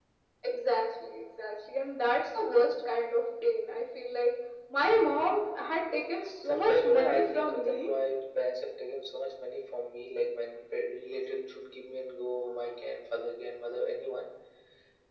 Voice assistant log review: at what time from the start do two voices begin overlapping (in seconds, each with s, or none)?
6.4 s